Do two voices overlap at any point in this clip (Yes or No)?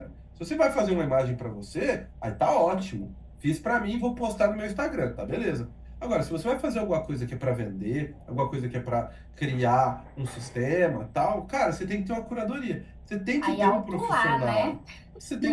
Yes